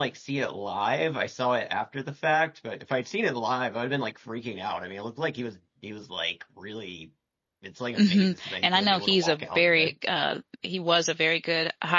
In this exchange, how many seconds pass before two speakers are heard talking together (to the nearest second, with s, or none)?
8 s